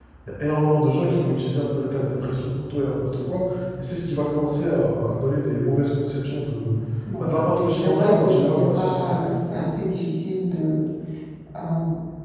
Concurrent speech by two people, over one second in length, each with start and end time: 7.7-9.1

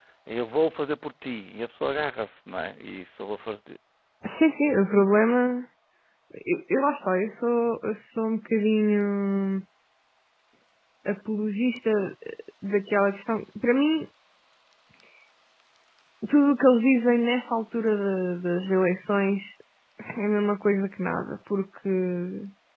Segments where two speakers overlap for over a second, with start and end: none

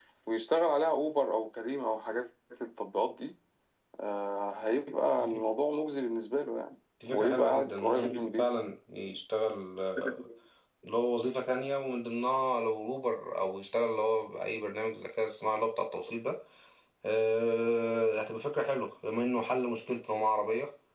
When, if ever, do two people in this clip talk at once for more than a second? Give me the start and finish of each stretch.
7.1-8.5

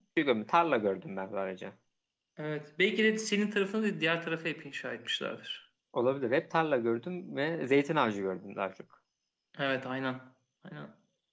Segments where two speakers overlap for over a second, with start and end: none

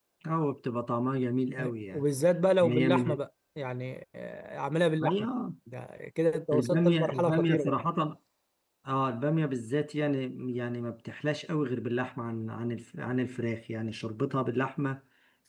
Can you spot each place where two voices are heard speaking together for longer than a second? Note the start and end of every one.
6.5-7.7

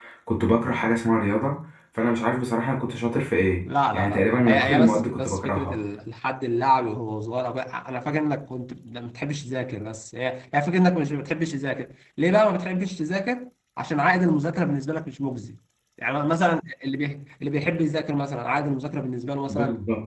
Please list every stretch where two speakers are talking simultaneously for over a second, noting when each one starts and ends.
3.9-5.8

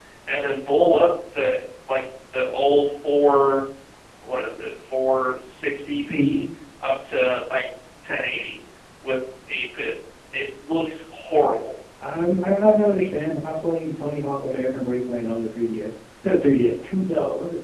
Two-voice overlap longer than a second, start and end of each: none

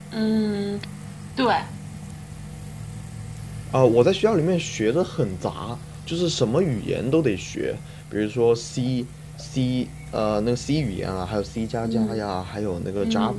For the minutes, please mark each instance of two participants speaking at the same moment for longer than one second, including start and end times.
none

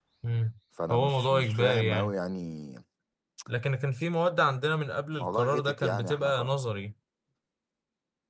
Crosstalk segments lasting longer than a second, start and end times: 0.9-2.1, 5.2-6.5

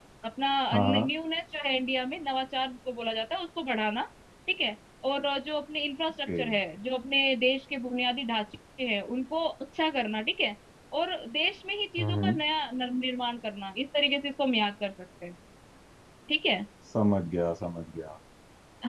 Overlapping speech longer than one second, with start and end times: none

